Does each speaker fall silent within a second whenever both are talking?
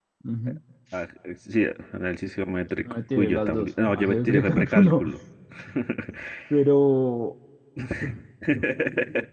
No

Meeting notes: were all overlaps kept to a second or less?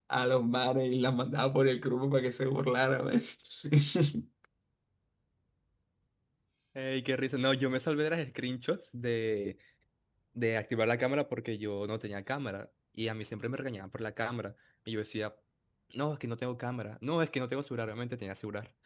Yes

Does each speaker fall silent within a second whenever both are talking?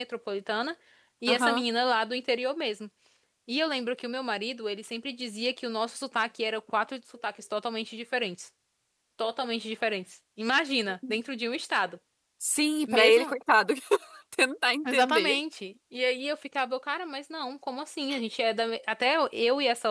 Yes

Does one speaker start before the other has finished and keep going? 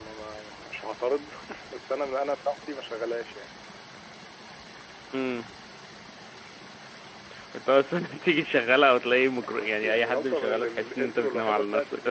Yes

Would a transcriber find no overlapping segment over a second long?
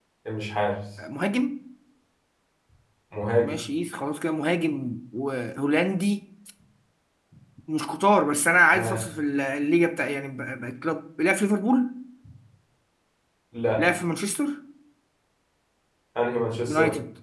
Yes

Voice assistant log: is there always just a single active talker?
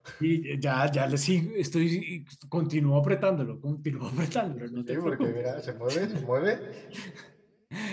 No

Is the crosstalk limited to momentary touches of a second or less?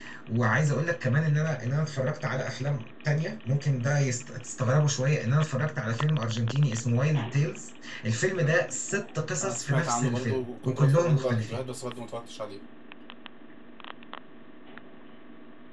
No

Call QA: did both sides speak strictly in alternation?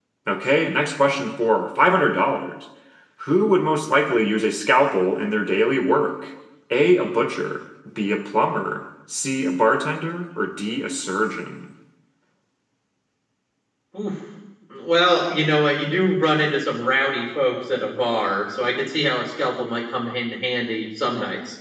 Yes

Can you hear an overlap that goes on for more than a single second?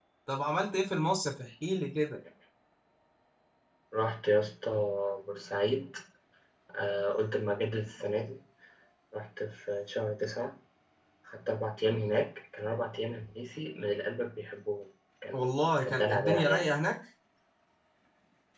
Yes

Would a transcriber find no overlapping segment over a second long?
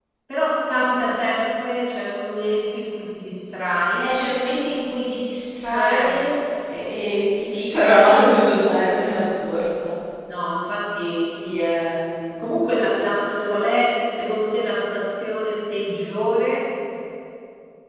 Yes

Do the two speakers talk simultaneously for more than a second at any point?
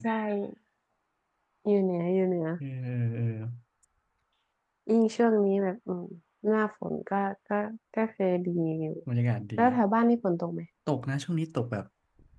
No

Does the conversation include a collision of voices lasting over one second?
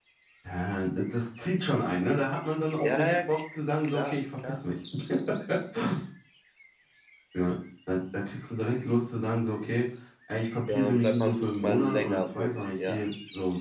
Yes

